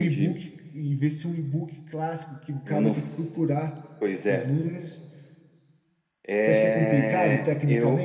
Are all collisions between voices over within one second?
No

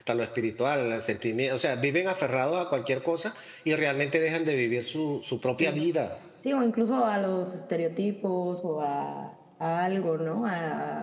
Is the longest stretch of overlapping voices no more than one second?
Yes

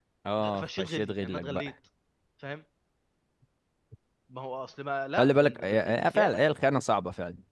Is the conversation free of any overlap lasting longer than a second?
No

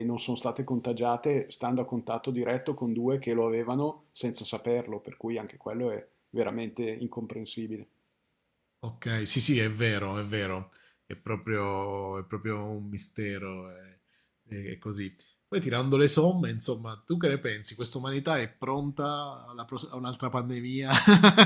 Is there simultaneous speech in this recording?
No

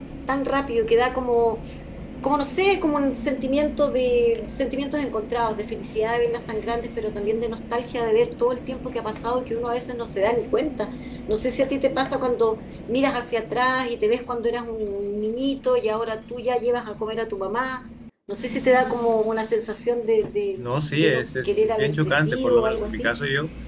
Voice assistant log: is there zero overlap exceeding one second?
No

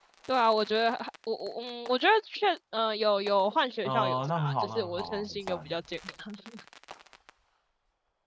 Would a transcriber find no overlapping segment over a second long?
No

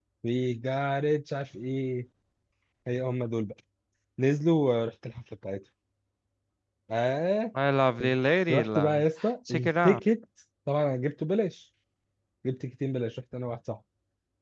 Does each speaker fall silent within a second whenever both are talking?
Yes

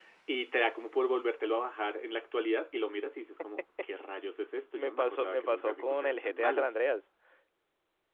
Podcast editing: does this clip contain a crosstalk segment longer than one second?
Yes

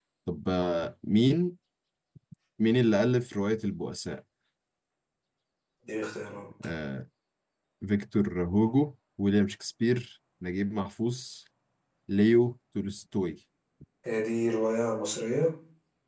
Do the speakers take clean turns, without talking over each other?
Yes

